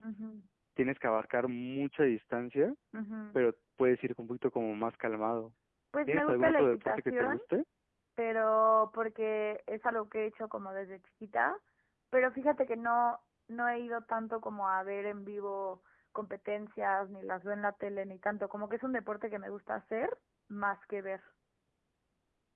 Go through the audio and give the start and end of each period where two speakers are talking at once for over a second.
6.1-7.4

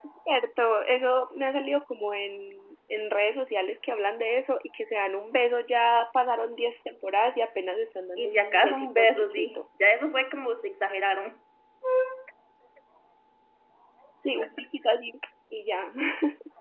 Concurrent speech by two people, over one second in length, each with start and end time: 8.2-9.6

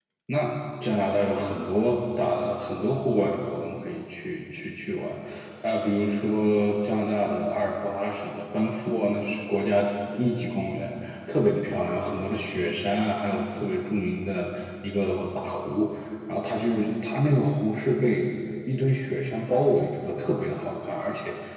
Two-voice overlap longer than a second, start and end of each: none

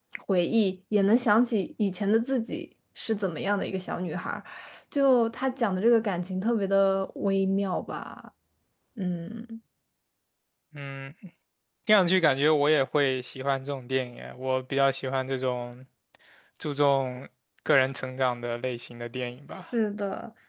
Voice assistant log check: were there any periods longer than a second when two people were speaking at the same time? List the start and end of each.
none

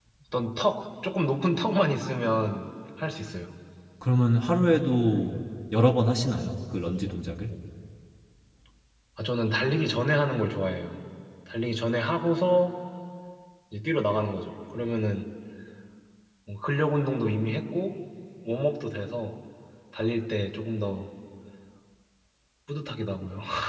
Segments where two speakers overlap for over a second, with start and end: none

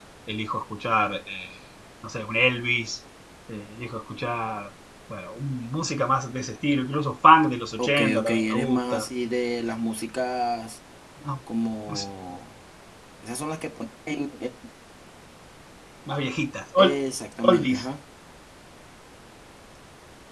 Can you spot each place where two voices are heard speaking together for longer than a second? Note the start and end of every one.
7.8-9.1

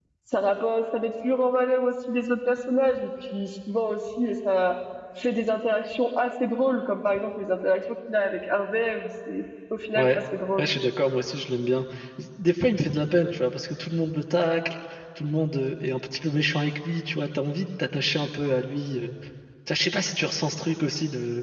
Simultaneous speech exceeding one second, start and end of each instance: none

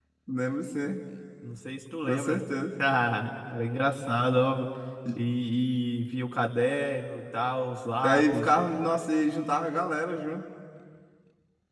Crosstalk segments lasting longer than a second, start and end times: none

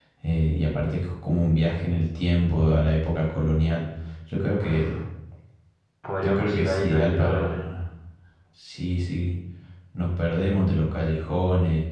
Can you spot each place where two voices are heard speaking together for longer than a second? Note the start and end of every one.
6.2-7.6

